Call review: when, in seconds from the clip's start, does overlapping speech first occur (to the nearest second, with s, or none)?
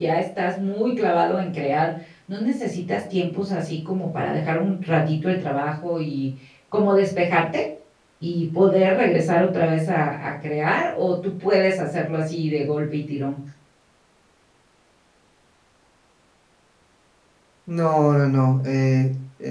none